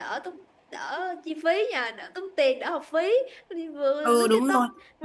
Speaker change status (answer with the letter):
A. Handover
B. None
A